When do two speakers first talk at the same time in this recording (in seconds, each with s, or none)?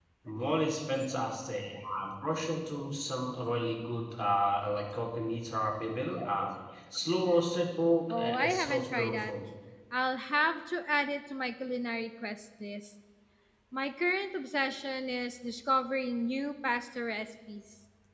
8.1 s